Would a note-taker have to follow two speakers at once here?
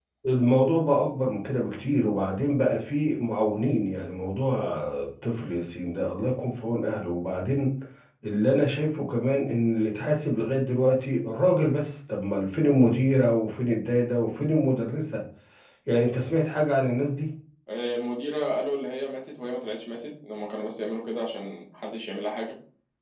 No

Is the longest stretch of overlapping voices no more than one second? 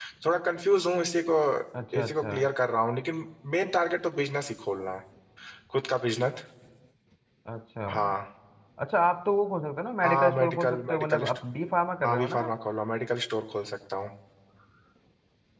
No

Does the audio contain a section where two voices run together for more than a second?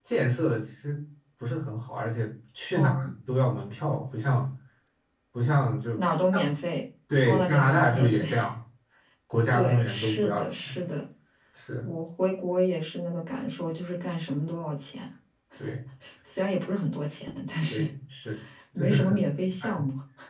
Yes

